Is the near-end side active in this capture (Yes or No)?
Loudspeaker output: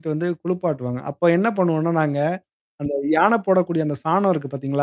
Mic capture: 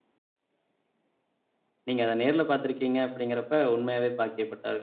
Yes